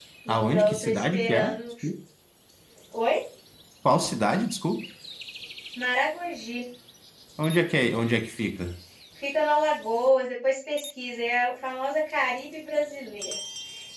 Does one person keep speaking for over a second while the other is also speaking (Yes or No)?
Yes